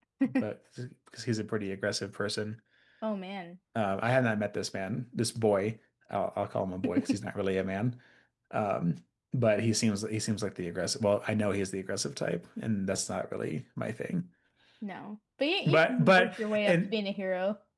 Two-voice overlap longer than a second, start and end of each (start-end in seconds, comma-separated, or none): 15.7-16.9